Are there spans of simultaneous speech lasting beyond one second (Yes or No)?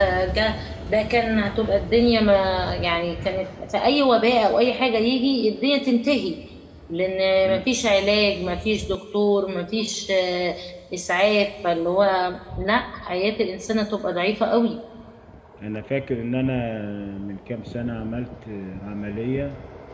No